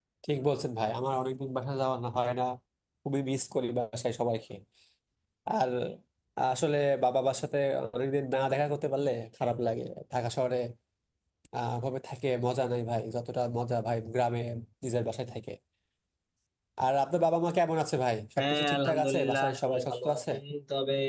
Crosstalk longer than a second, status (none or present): present